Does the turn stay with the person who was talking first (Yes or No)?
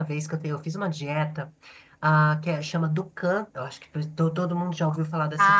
No